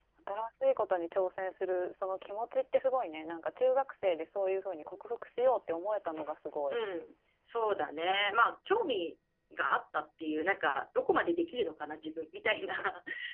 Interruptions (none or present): none